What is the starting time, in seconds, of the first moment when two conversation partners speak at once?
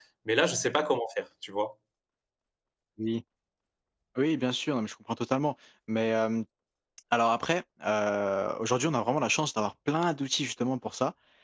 none

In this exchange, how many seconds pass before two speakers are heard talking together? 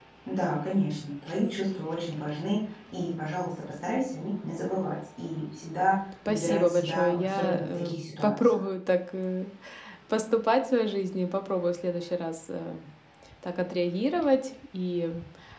6 s

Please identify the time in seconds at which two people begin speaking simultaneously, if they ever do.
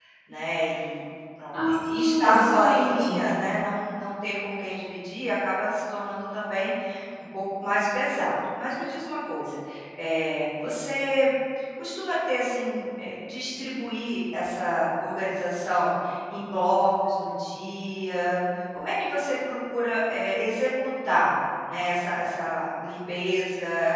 2 s

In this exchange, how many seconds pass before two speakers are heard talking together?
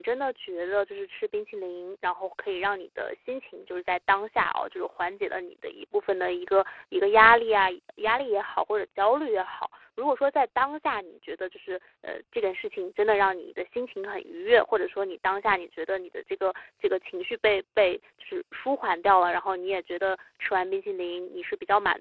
none

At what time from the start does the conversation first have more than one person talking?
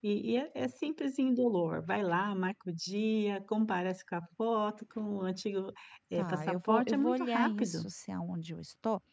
6 s

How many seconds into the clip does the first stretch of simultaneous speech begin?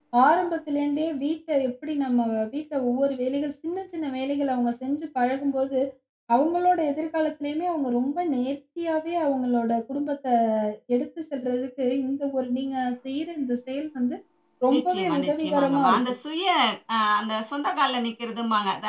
15 s

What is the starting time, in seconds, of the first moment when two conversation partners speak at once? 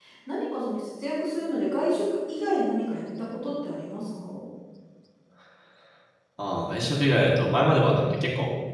none

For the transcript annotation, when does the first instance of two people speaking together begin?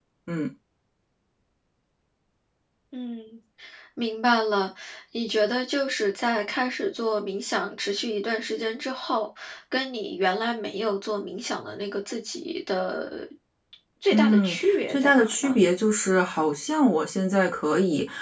14 s

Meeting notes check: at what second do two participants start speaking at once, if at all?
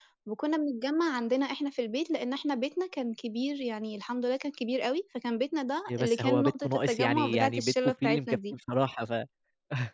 6 s

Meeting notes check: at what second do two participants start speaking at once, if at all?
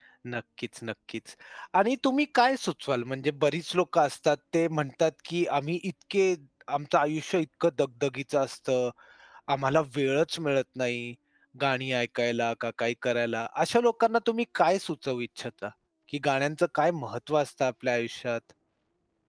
none

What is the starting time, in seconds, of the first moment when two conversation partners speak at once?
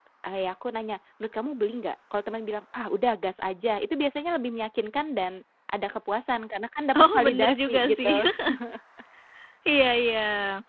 7 s

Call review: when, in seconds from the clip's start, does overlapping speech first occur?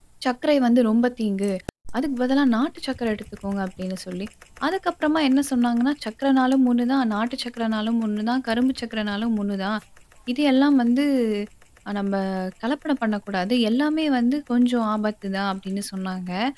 none

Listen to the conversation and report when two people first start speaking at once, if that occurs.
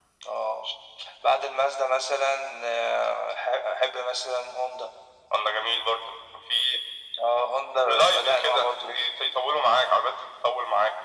8 s

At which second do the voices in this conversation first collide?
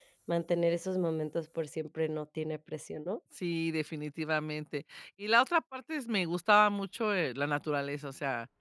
none

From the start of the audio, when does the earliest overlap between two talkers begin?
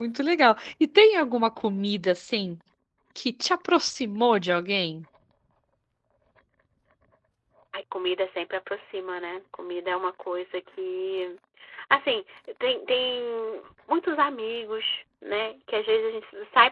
none

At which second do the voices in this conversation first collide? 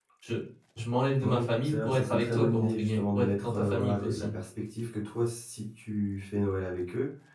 1 s

